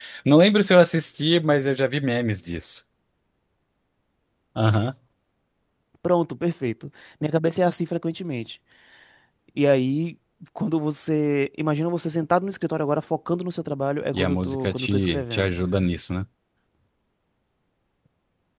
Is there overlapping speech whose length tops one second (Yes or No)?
Yes